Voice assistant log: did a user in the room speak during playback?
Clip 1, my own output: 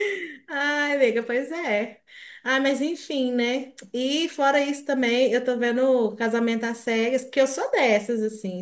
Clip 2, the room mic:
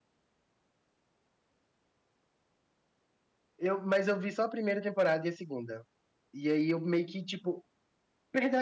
Yes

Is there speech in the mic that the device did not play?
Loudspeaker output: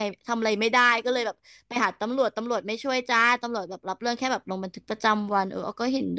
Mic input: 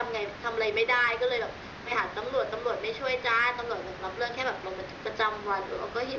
No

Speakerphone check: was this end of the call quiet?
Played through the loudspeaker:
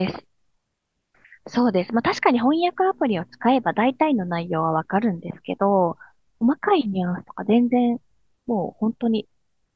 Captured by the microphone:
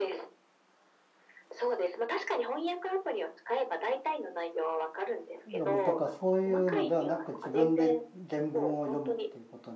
No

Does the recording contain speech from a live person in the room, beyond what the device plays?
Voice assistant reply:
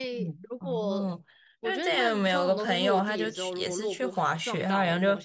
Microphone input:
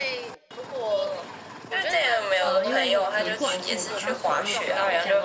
Yes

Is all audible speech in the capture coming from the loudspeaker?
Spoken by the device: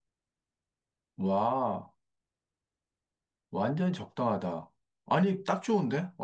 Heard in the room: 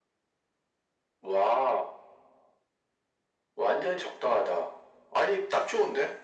Yes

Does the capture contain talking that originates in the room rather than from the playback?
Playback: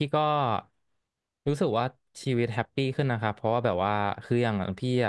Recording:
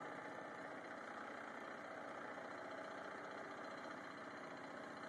No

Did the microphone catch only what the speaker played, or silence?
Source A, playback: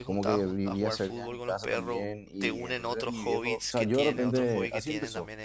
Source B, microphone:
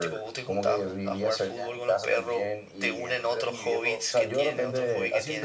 Yes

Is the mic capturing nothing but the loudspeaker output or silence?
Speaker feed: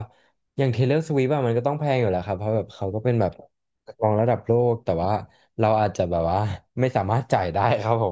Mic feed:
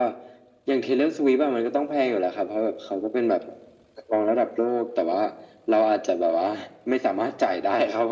Yes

